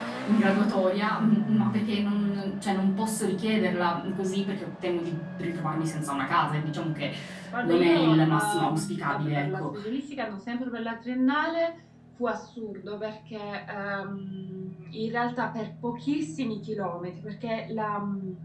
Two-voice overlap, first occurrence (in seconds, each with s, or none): 7.6 s